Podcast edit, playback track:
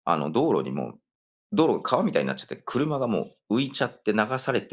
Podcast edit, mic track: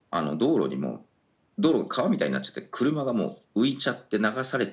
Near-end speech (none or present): none